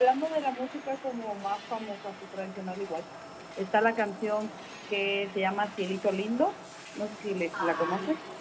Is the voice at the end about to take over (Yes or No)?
Yes